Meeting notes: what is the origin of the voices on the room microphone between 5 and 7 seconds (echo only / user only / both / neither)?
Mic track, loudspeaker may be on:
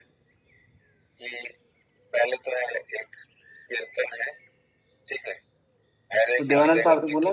both